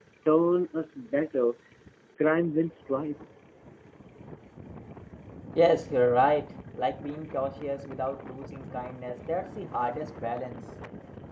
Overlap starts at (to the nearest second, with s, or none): none